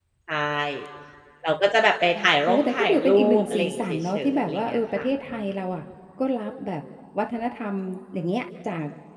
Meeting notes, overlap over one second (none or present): present